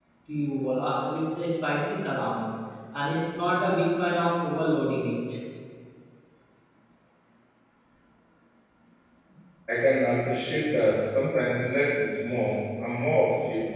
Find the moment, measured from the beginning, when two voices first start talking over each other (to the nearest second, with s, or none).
none